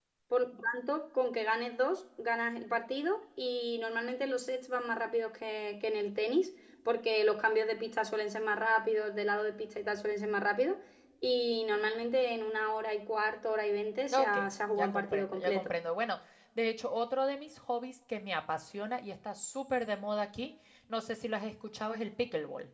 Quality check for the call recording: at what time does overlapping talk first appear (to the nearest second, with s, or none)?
14 s